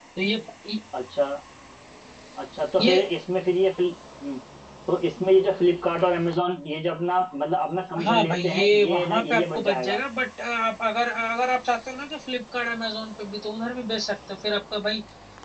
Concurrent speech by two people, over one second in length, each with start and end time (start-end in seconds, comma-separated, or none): 8.1-10.0